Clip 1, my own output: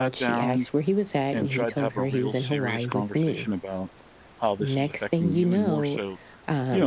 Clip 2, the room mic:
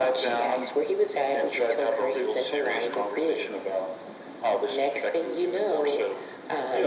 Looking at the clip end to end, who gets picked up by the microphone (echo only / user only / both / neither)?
echo only